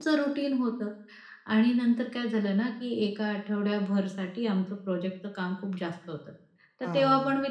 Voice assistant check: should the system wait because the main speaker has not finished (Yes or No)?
Yes